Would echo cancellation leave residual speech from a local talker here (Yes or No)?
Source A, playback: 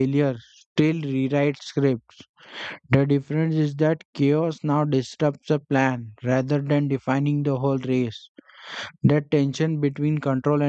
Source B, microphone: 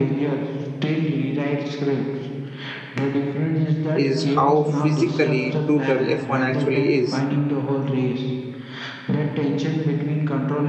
Yes